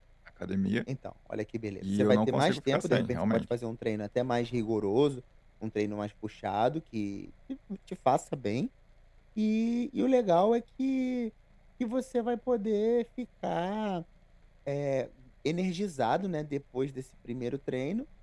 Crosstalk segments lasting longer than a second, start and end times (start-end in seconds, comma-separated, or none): 1.8-3.4